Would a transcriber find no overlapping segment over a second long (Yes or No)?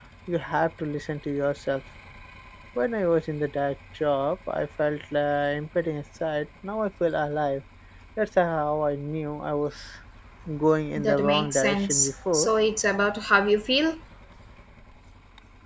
No